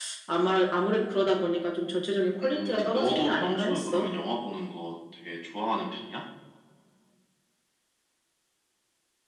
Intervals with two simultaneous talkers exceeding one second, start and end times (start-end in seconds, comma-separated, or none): 2.4-4.1